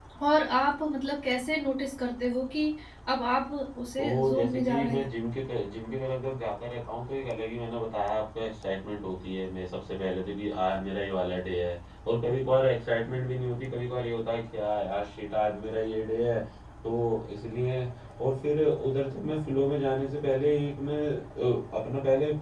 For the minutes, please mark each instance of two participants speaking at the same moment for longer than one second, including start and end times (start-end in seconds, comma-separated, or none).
4.0-5.2